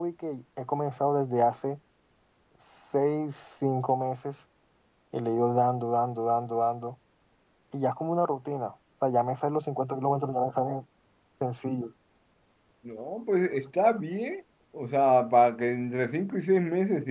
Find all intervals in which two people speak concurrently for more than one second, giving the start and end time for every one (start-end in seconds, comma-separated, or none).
none